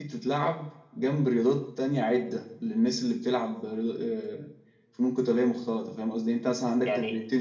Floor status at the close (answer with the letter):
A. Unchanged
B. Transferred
A